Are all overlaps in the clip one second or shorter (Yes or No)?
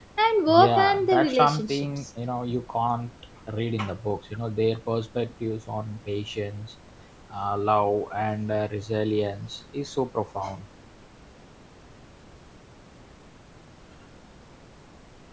No